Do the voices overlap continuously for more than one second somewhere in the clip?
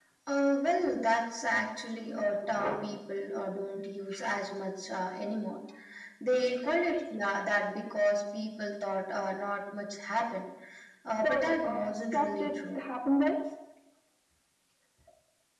Yes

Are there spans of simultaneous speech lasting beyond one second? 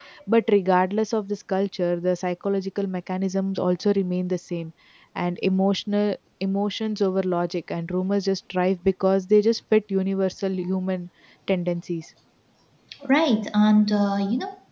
No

